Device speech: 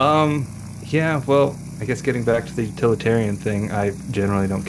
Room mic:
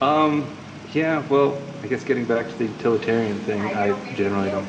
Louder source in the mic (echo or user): echo